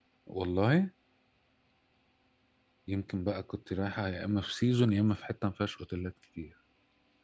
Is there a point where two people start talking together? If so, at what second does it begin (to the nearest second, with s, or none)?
none